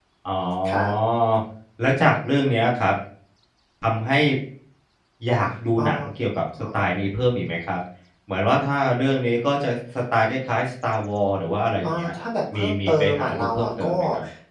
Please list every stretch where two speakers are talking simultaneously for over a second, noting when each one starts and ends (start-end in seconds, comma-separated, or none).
12.5-14.0